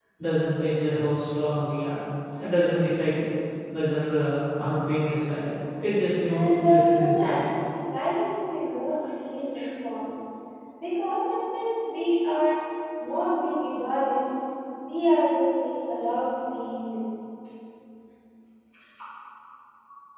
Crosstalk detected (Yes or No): Yes